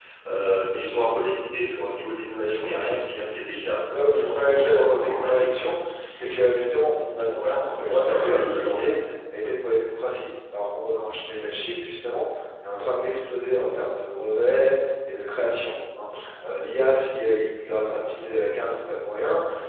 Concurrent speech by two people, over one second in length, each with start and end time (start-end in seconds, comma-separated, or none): 3.9-5.7, 7.3-8.9